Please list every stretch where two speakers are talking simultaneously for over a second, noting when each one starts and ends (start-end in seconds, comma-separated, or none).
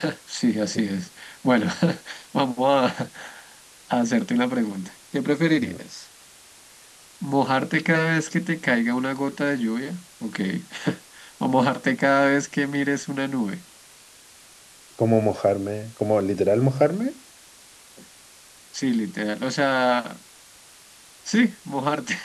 none